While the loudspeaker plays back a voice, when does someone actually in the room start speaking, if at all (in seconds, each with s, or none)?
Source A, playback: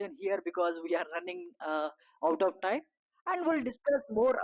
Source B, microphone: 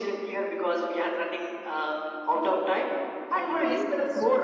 3.3 s